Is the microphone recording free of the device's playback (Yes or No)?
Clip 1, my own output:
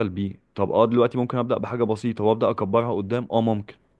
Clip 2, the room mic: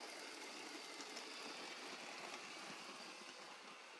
Yes